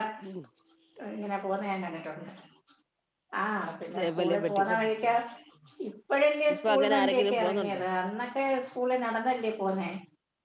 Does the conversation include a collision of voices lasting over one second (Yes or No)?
Yes